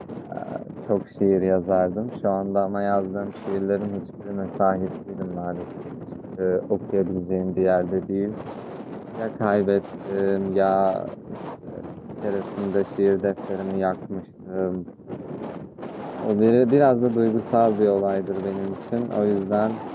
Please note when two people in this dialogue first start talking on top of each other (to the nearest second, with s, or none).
none